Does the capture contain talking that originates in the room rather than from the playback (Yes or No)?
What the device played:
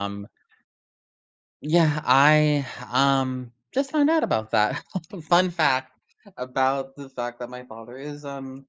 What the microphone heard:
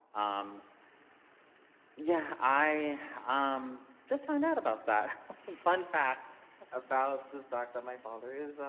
No